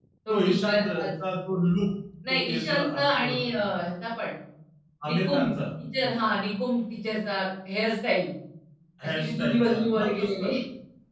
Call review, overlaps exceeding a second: present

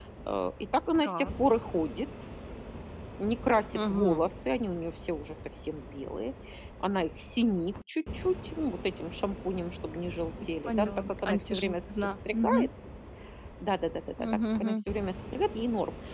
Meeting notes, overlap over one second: present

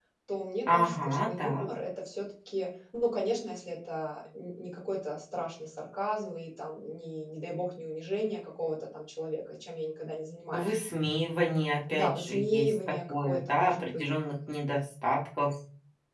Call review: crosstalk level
present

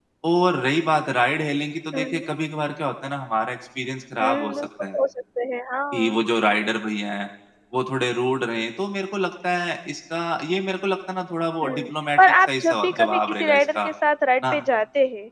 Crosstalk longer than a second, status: present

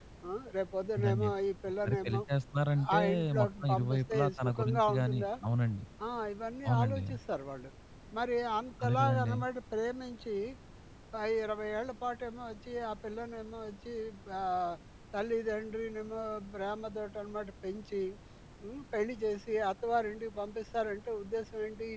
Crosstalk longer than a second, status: present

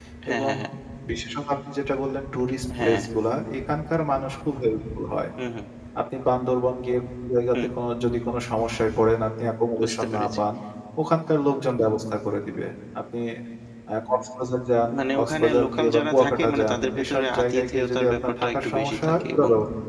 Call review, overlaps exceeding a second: present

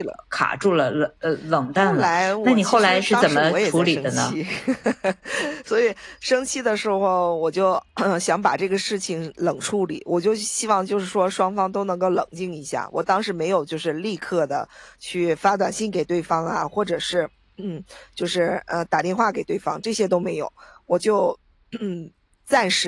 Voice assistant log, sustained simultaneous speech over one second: present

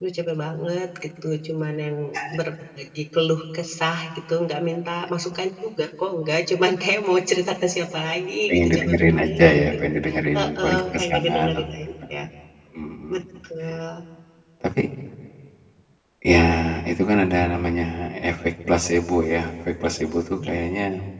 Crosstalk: present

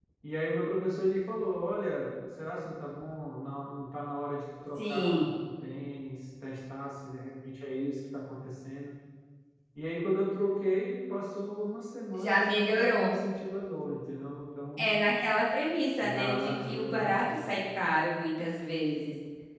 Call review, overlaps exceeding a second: present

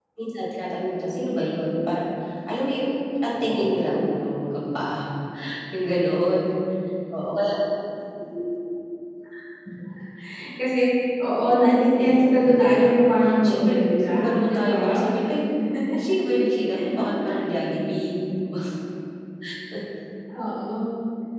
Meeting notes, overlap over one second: present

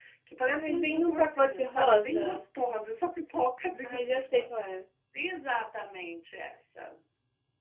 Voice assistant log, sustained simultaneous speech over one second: present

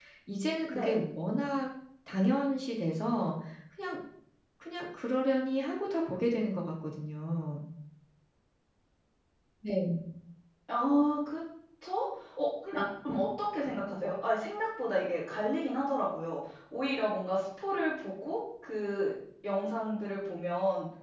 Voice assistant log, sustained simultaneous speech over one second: none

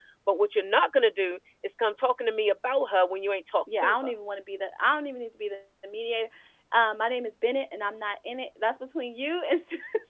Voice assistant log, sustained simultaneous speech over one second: none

